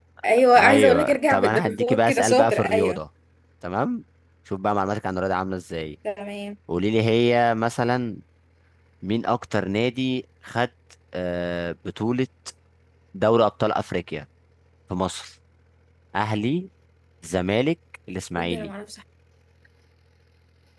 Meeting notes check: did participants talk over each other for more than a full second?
Yes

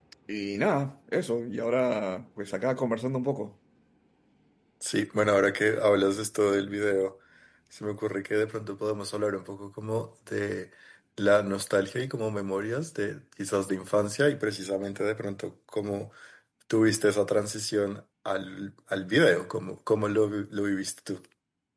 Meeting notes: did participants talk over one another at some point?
No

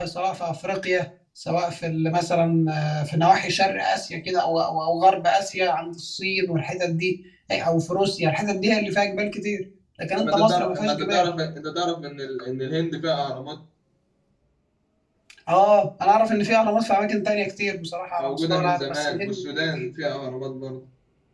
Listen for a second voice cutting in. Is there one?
Yes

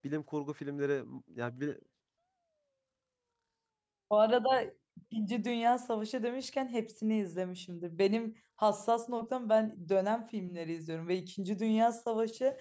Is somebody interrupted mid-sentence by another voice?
No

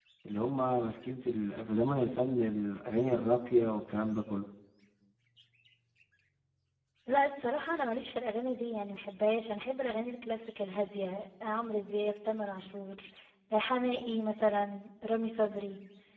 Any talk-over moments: No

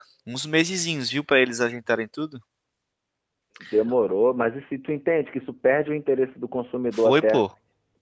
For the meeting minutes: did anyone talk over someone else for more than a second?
No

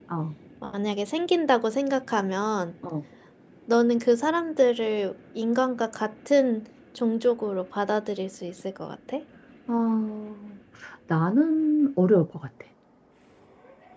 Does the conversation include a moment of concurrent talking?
No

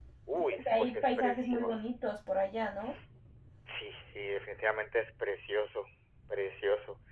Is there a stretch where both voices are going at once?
Yes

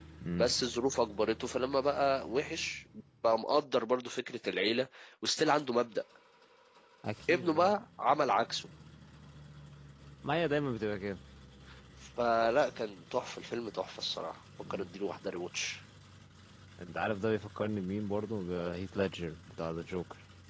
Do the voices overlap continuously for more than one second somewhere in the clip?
No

